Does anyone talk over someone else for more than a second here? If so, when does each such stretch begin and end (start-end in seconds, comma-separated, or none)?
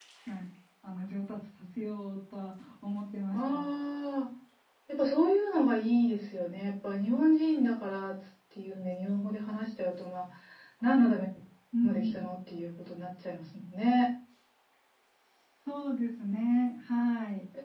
none